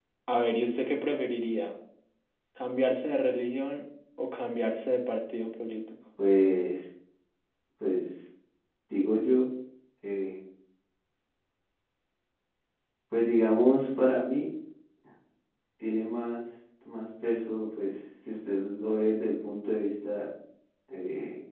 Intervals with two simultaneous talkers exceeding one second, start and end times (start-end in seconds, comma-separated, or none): none